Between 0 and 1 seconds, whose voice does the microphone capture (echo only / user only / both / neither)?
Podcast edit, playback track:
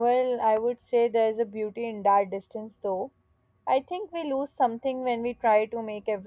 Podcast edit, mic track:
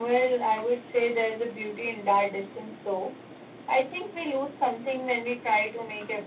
echo only